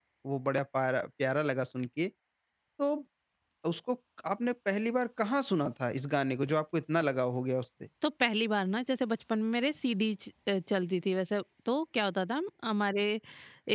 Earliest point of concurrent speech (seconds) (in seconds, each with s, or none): none